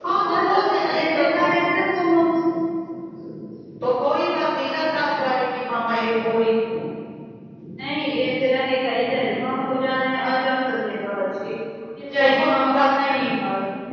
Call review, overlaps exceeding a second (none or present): present